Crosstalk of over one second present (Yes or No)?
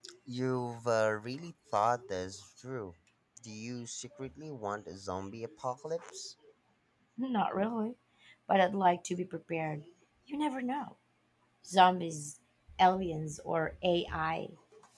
No